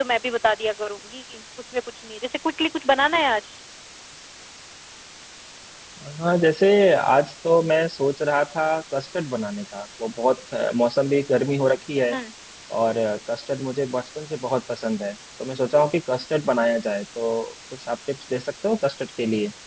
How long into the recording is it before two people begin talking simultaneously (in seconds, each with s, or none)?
none